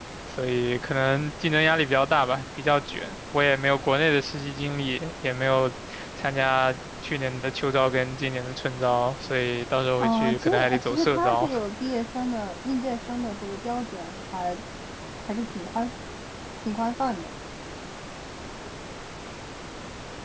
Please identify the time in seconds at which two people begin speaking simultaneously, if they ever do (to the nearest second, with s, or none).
10 s